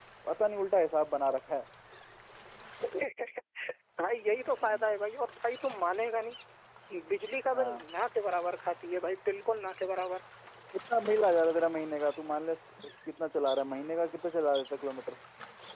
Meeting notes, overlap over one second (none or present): none